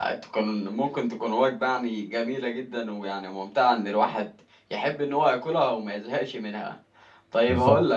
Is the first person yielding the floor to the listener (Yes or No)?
No